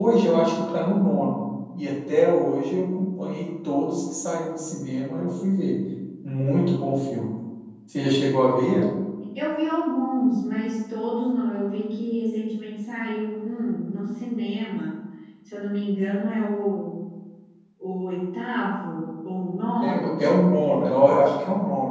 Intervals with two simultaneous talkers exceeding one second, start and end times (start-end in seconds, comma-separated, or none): none